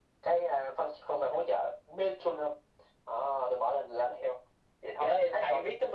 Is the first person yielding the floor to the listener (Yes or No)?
Yes